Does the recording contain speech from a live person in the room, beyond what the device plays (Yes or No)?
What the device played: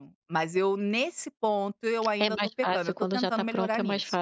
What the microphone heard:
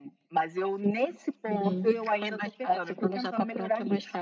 Yes